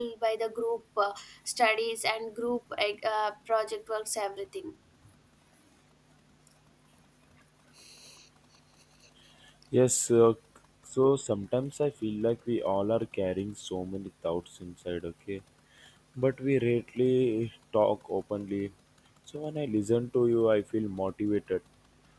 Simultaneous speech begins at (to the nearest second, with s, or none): none